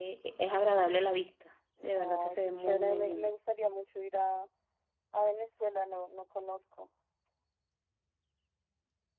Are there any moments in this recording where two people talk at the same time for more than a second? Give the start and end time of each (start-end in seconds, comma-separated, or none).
2.0-3.3